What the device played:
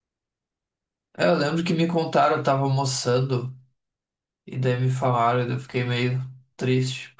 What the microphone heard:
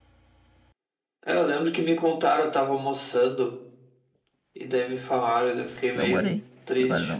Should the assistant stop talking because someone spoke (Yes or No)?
Yes